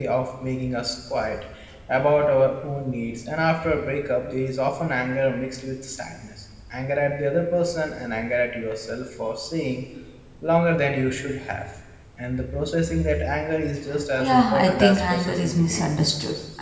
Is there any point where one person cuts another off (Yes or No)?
Yes